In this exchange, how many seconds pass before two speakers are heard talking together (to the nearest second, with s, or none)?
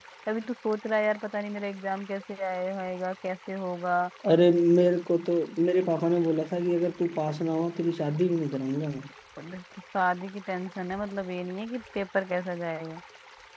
none